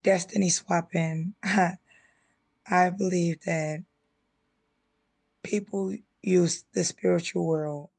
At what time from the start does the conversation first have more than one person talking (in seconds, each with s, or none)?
none